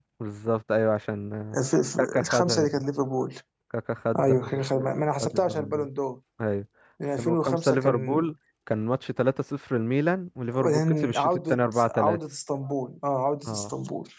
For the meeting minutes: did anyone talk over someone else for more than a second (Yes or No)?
Yes